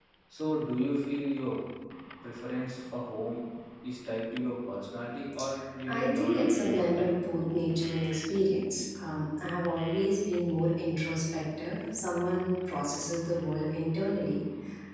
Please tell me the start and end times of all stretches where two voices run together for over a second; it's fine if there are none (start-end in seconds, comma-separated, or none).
5.9-7.1